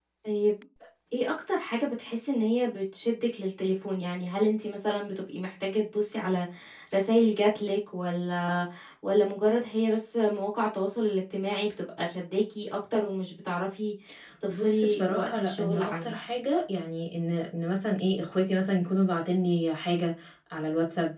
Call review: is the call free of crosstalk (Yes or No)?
No